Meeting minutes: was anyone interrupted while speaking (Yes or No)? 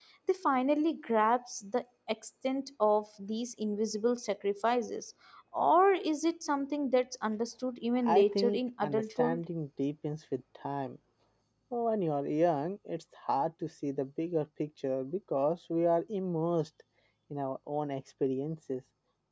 Yes